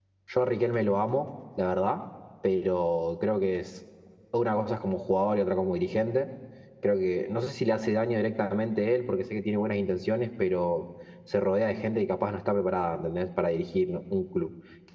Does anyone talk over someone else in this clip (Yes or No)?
No